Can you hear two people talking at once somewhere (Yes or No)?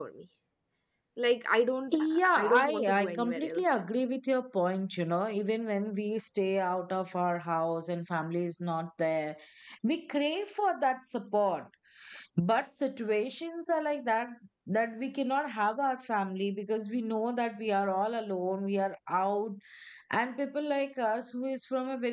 Yes